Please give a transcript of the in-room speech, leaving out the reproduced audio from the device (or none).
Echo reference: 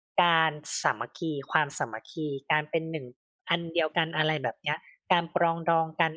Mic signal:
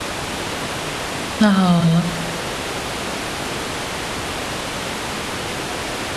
อะฮะ